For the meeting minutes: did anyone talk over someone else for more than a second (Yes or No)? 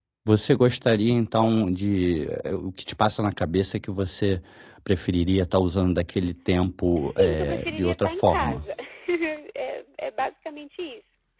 Yes